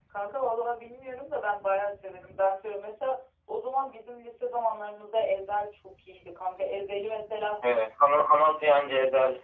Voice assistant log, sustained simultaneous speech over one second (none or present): none